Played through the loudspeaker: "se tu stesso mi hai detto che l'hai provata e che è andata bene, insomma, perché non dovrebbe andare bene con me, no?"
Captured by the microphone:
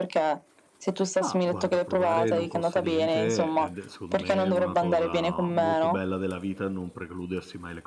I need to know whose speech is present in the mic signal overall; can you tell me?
both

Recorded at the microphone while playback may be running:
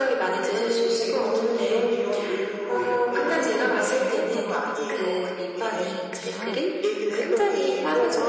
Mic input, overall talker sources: both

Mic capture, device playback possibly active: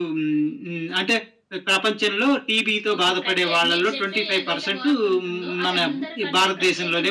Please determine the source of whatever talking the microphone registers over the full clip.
both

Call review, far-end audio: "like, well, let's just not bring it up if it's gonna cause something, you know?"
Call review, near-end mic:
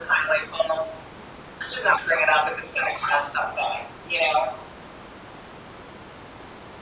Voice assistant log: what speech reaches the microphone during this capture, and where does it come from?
echo only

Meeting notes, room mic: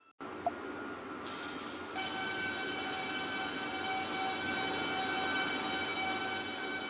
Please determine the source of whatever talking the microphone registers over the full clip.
neither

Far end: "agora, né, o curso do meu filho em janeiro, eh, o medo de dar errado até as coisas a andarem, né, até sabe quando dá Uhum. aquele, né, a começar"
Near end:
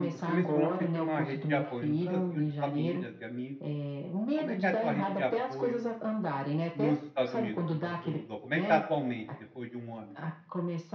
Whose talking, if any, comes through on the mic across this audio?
both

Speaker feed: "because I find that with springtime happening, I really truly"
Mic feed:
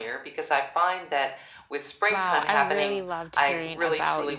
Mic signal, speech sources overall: both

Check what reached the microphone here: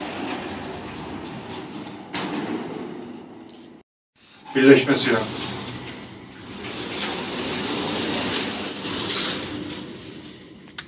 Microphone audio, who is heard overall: user only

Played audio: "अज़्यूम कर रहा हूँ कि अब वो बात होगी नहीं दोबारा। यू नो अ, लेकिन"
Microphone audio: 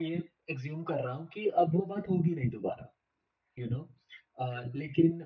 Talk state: echo only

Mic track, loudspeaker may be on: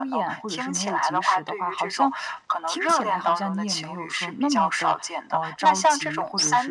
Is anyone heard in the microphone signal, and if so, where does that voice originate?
both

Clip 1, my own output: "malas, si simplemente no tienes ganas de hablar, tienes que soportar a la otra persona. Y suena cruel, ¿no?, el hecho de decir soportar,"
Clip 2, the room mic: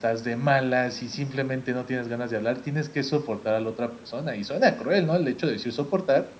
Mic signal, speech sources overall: echo only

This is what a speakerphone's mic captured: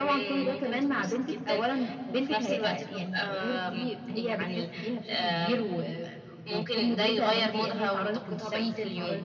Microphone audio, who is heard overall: echo only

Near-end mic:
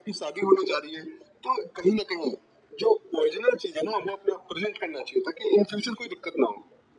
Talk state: echo only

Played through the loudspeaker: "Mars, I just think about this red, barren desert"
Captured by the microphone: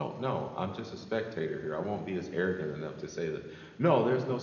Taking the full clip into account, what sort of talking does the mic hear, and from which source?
user only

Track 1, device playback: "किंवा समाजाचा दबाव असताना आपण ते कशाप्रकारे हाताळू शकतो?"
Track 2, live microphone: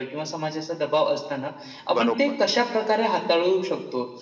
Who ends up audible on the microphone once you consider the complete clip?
both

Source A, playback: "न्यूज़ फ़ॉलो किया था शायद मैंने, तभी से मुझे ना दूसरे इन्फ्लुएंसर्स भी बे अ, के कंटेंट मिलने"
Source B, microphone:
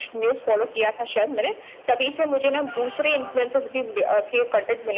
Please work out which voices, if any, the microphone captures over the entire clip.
echo only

